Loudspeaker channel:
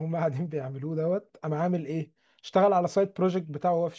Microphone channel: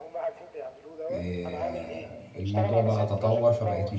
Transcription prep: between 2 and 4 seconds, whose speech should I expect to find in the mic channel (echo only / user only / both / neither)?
both